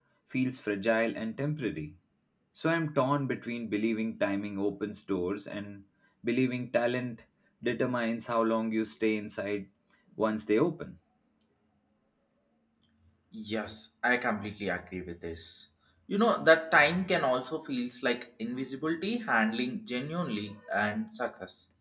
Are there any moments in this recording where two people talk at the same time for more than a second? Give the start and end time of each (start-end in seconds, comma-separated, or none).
none